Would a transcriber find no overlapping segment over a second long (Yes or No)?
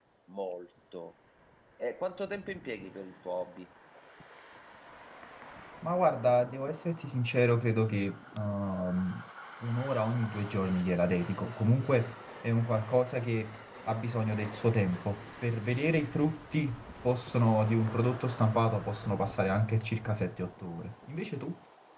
Yes